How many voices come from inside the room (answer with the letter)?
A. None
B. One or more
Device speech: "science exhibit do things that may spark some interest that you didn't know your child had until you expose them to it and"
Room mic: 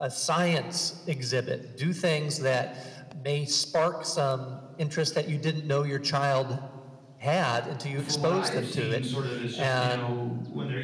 B